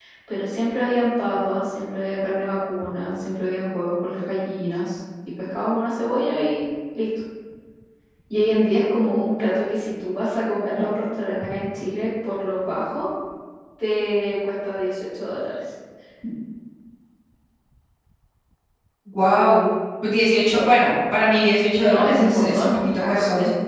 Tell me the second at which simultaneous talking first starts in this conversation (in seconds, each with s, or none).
21.8 s